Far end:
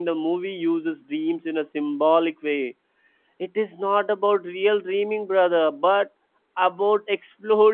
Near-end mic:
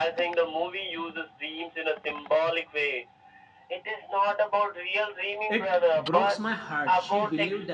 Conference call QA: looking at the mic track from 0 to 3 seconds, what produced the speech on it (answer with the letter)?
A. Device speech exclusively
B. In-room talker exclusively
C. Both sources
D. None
A